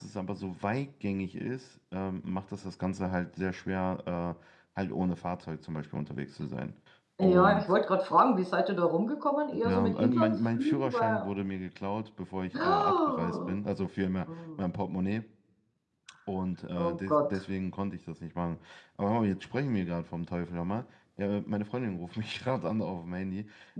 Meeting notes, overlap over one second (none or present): present